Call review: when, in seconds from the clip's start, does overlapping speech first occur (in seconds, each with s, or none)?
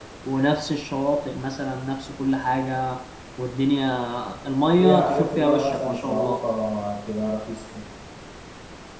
4.8 s